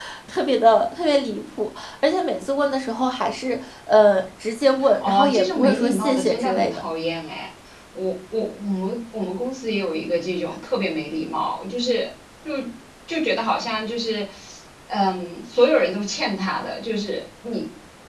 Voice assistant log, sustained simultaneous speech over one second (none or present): present